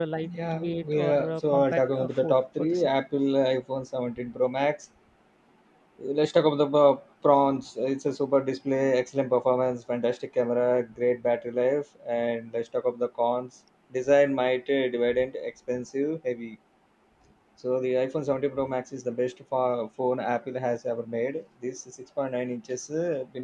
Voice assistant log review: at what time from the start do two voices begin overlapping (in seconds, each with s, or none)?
0.5 s